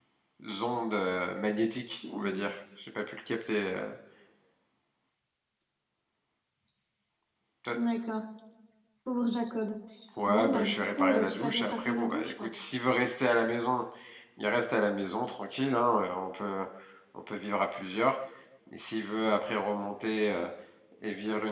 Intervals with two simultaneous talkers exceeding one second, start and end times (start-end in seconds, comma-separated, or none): 10.3-12.5